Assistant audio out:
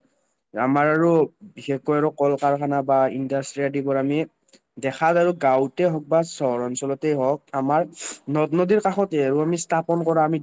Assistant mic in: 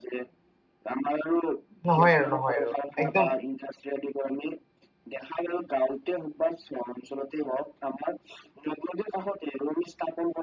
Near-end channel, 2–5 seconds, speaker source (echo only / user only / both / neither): both